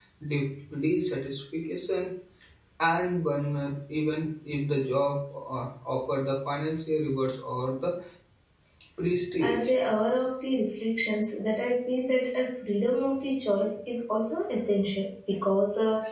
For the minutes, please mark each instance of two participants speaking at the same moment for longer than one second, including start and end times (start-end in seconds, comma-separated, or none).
none